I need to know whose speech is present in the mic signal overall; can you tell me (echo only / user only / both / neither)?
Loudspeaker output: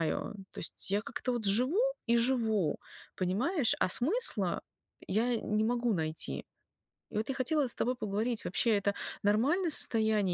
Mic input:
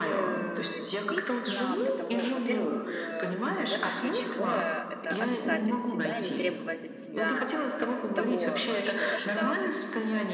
both